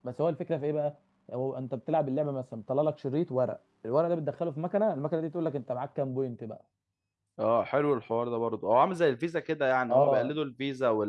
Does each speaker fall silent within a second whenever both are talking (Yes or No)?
Yes